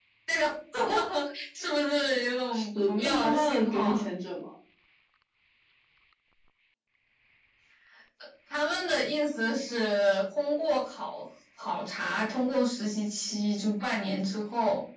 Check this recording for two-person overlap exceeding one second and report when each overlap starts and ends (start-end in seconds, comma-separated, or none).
2.5-4.0